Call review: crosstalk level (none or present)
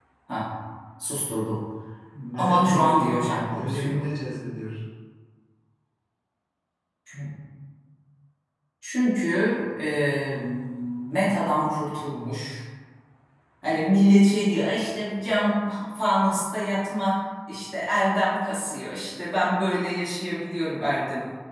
present